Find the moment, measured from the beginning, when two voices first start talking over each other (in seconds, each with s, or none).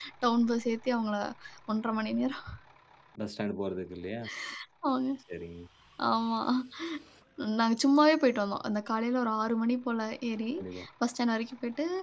none